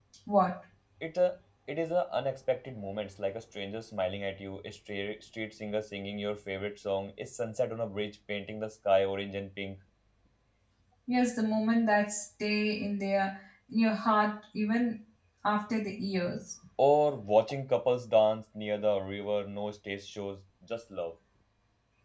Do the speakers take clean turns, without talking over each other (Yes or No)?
Yes